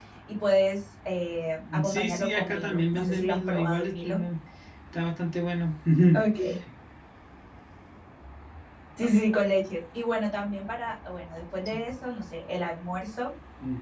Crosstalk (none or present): present